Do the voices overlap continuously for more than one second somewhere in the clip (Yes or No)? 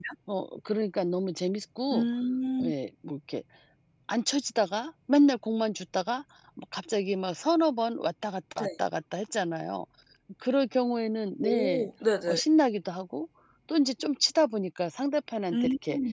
No